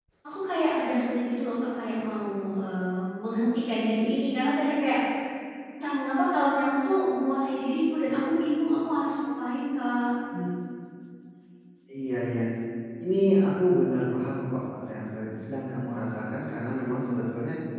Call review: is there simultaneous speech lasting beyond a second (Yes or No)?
No